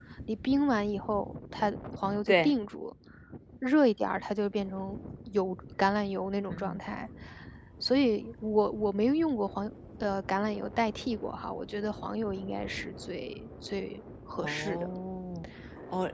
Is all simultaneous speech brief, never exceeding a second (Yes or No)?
Yes